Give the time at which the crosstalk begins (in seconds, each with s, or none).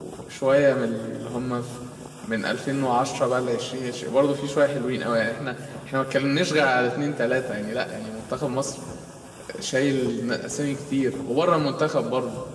none